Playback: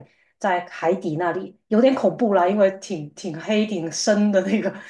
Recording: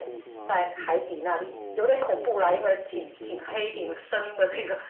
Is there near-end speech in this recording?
Yes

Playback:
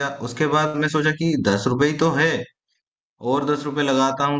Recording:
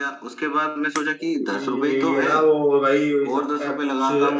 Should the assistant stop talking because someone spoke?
Yes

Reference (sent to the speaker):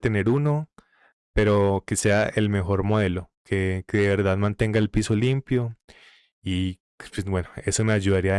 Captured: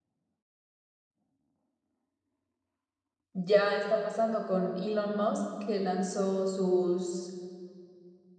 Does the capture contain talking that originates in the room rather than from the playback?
Yes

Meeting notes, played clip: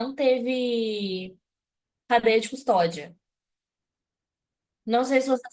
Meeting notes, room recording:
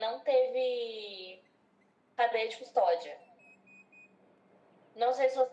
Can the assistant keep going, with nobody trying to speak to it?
Yes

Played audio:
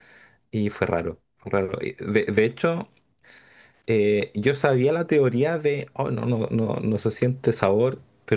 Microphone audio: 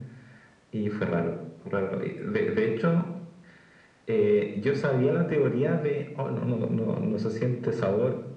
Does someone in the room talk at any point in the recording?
No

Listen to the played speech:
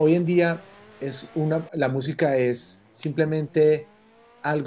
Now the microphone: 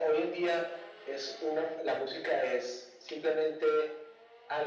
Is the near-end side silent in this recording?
Yes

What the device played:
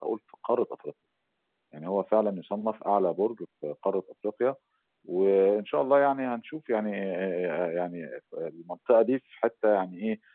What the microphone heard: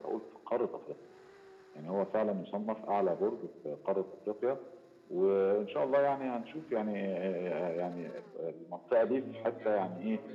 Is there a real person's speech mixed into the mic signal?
Yes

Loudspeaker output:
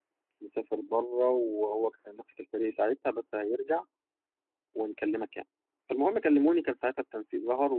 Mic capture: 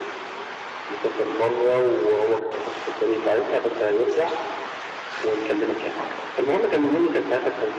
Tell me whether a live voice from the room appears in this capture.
No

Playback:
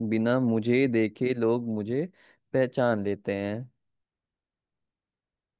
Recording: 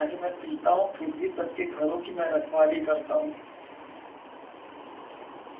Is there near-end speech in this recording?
Yes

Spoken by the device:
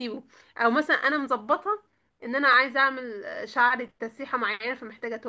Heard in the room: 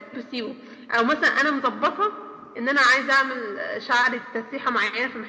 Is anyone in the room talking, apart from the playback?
No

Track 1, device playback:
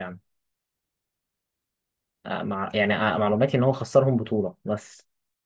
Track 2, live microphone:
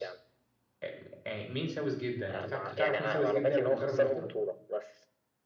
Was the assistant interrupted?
Yes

